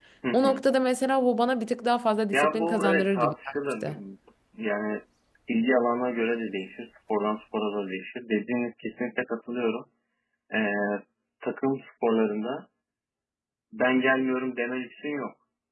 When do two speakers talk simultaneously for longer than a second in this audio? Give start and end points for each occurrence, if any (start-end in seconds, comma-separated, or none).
2.3-3.9